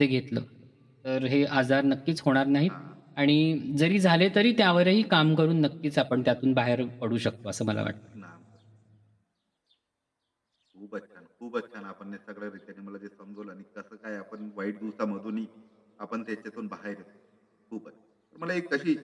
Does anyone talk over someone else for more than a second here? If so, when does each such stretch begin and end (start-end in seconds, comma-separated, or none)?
none